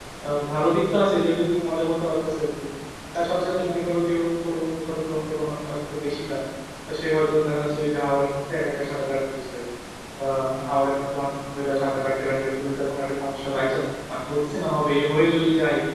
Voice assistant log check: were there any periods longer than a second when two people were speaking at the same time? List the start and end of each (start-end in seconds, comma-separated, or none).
none